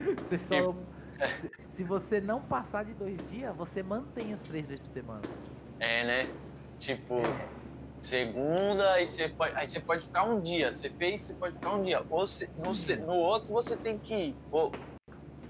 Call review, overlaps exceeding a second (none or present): none